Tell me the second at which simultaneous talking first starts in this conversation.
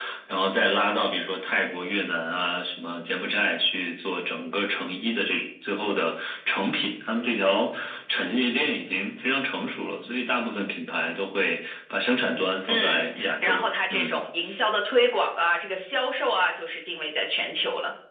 12.7 s

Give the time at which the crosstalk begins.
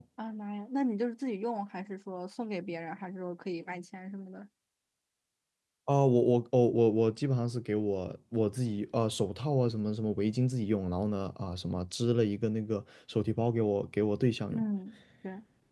none

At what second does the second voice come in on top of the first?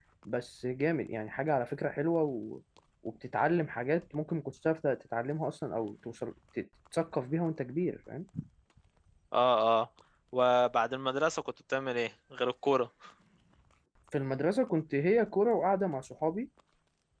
none

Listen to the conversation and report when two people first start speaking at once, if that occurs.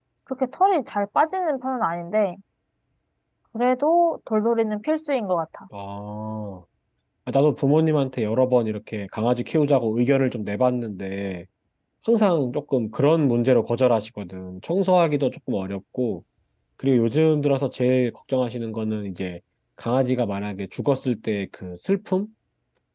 none

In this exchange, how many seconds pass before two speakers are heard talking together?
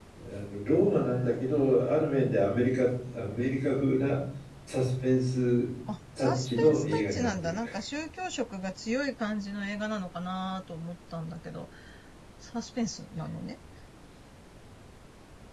6.2 s

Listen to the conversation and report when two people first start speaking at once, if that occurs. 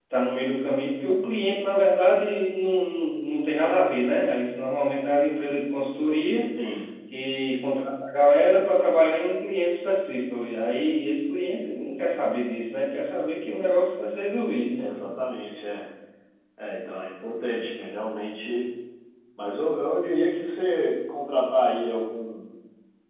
none

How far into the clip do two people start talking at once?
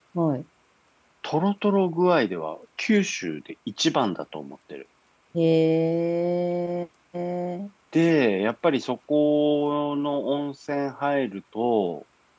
none

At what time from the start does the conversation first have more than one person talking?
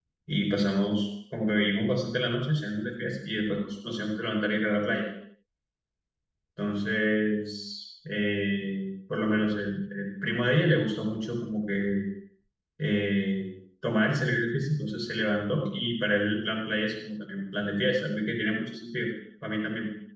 none

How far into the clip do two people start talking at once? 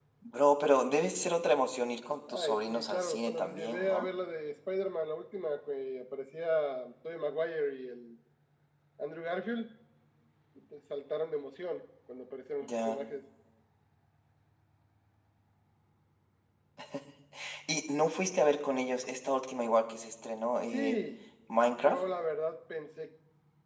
2.3 s

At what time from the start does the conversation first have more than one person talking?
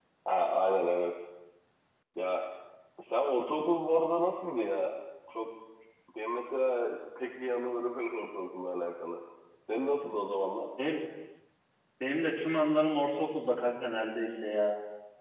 none

